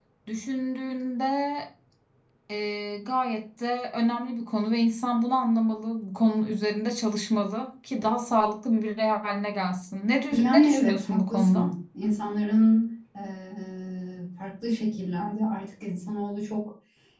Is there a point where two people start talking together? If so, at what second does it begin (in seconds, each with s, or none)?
10.3 s